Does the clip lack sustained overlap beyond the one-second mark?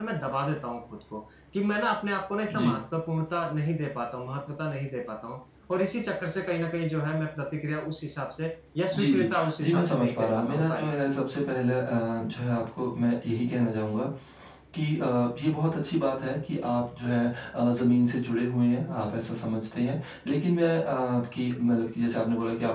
No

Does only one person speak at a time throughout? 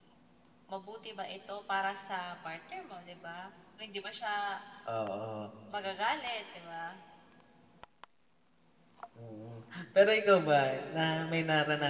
Yes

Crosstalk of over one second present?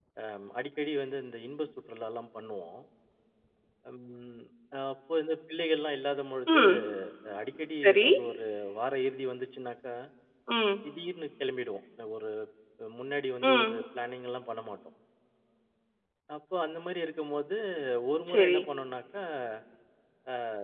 No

